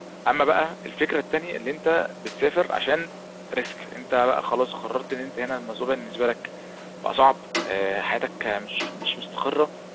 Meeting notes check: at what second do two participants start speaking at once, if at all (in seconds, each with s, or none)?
none